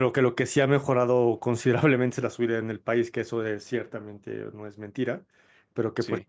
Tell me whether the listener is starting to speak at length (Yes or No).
No